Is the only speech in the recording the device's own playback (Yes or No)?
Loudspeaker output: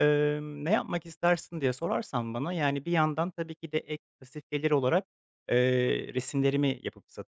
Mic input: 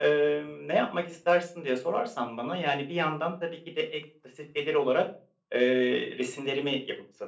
Yes